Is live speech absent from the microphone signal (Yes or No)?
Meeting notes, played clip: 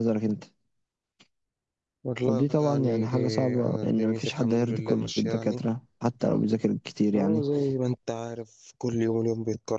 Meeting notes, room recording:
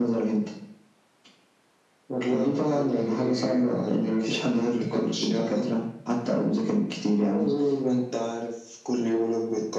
Yes